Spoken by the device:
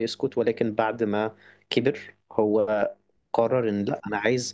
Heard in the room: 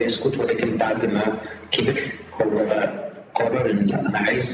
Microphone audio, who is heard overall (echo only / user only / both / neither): both